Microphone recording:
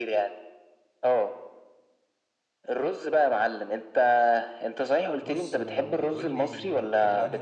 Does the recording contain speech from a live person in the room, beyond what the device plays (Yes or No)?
Yes